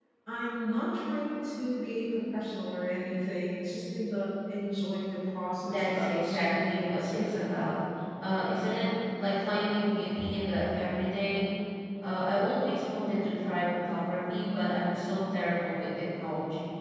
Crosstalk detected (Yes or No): Yes